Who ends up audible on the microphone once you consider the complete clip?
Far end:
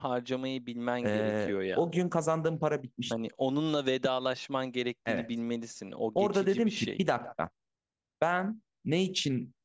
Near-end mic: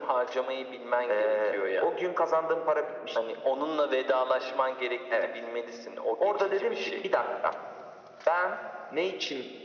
echo only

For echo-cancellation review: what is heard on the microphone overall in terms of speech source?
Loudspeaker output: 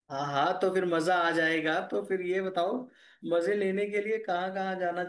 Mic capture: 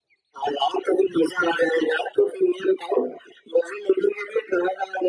echo only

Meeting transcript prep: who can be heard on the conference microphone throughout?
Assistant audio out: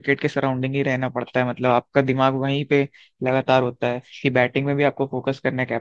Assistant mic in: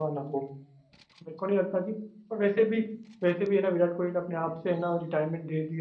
user only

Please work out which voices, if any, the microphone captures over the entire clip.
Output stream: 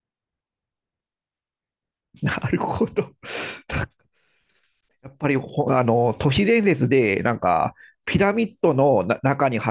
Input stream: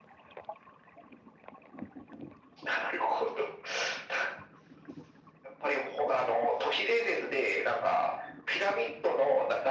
echo only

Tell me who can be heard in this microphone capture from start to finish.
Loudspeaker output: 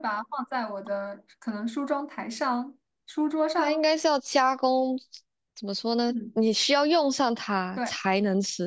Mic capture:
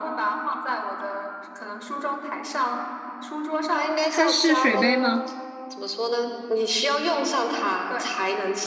both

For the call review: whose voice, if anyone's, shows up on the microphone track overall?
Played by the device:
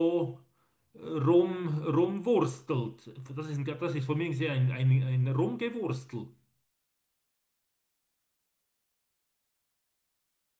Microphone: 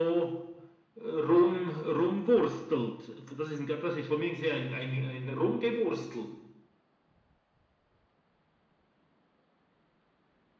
echo only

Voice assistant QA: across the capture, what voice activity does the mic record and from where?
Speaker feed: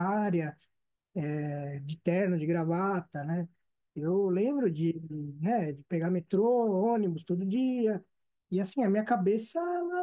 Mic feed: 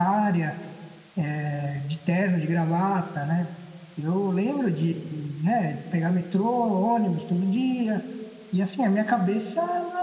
echo only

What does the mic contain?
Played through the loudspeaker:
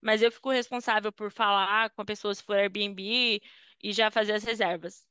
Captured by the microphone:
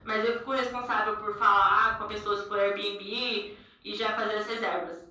echo only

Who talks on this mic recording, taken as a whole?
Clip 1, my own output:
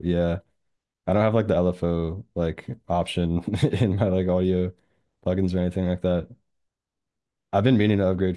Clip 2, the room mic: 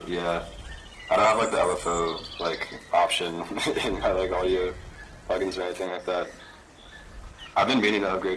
echo only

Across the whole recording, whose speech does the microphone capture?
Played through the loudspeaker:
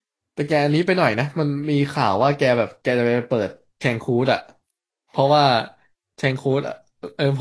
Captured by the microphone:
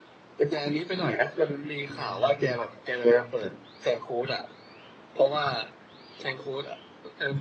both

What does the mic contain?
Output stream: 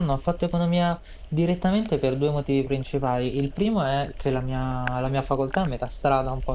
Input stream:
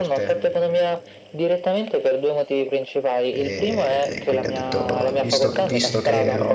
both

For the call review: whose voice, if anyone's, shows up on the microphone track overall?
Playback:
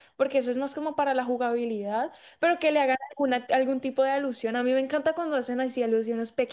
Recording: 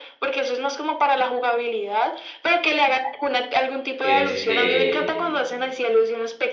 both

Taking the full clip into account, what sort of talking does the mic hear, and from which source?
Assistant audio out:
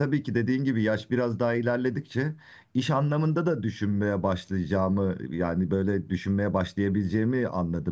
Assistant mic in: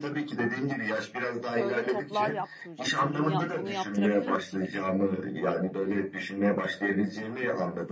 both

